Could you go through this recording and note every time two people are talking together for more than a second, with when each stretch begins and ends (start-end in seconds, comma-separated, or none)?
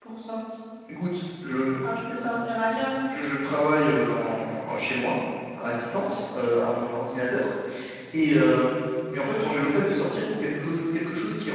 none